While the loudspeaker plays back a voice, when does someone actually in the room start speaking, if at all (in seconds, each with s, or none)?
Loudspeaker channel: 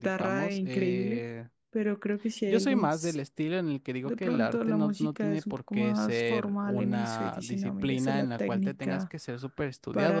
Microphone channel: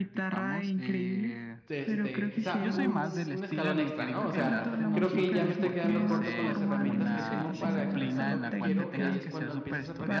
1.7 s